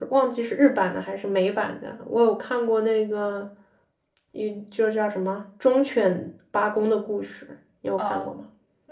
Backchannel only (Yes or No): No